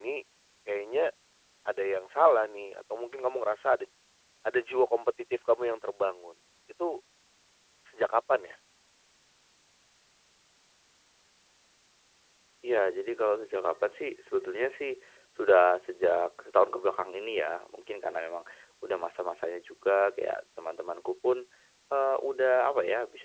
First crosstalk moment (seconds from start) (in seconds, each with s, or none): none